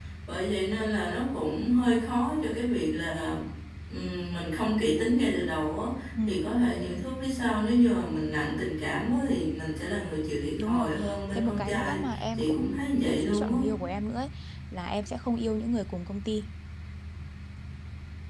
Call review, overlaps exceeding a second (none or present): present